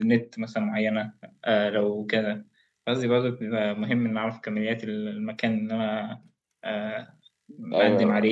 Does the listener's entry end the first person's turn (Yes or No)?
Yes